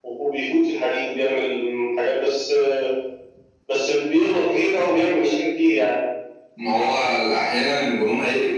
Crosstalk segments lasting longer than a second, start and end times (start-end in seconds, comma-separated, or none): none